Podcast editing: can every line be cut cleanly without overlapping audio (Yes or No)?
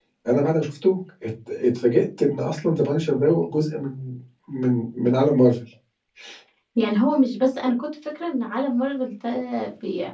Yes